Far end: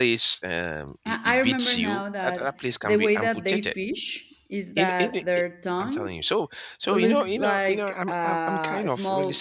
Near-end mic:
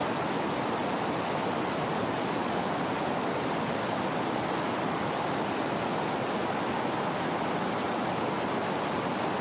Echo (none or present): none